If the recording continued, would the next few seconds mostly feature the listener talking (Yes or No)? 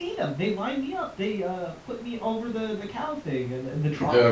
Yes